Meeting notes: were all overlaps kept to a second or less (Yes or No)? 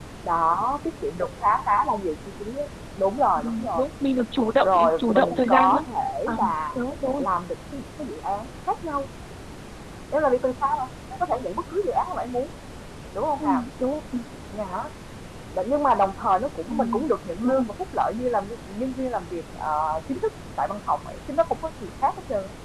No